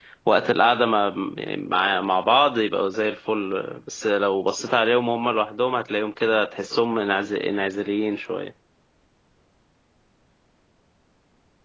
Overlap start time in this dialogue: none

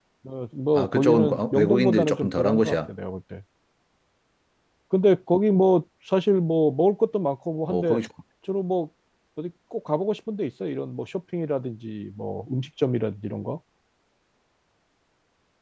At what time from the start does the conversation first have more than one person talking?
0.8 s

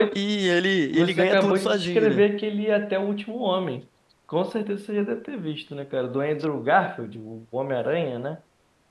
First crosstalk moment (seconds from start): 0.9 s

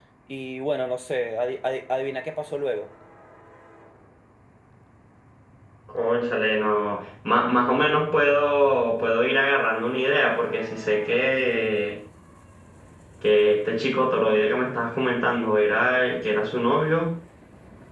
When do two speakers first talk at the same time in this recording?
none

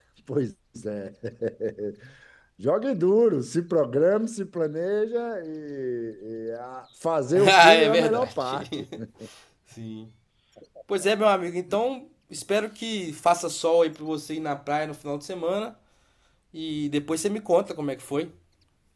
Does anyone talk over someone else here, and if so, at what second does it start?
7.3 s

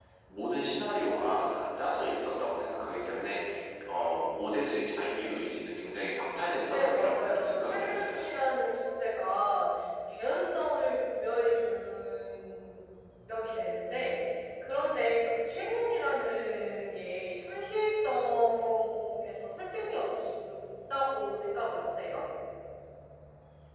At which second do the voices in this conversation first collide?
6.7 s

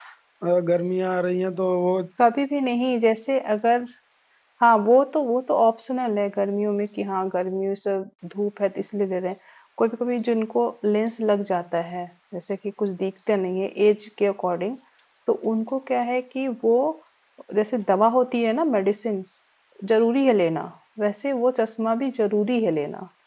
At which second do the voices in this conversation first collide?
none

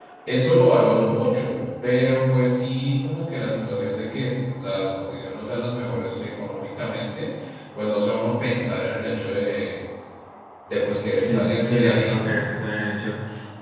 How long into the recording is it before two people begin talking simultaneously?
11.2 s

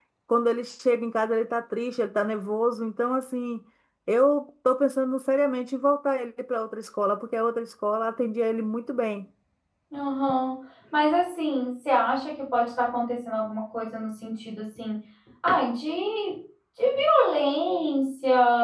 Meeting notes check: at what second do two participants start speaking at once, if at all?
none

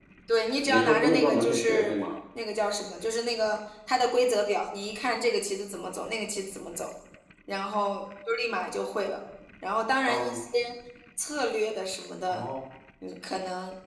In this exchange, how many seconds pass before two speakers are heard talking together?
0.6 s

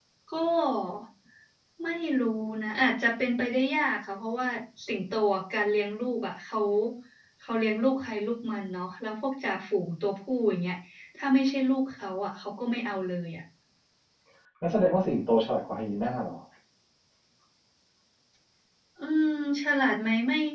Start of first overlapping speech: none

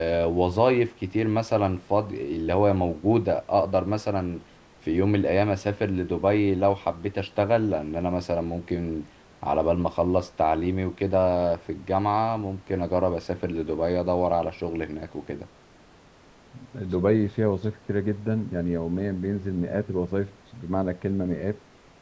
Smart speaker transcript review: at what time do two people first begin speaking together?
none

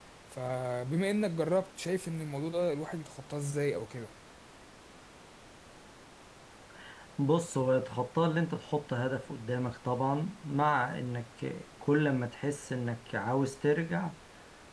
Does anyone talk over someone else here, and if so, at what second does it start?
none

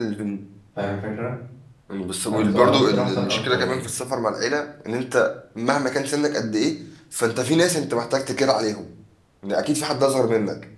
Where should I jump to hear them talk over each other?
2.3 s

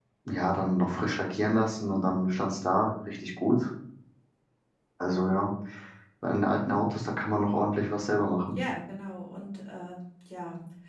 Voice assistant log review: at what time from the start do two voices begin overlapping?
none

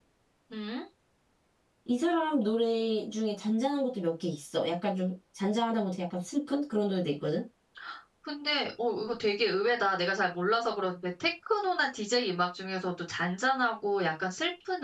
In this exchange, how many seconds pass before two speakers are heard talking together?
none

